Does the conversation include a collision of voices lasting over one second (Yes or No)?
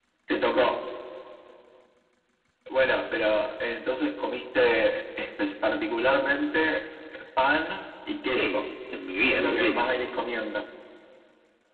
No